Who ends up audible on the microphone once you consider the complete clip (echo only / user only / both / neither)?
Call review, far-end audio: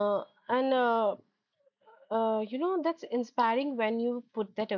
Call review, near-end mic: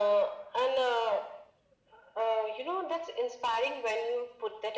echo only